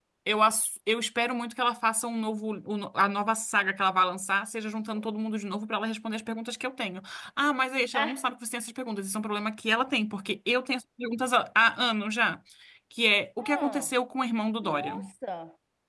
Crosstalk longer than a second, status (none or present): none